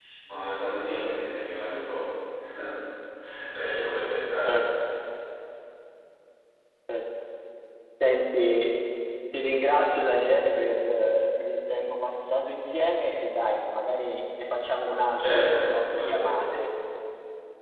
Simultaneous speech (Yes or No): Yes